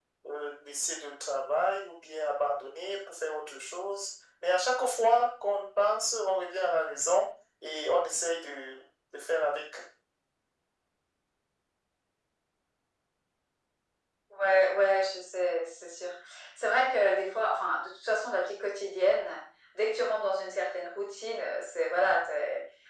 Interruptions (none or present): none